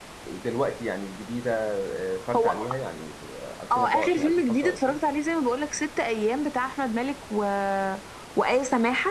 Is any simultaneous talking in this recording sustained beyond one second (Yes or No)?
Yes